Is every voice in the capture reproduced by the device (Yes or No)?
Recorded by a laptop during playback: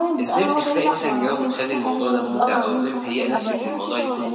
No